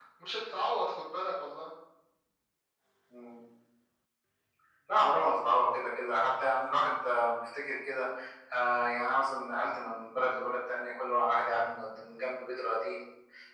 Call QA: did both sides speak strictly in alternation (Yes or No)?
Yes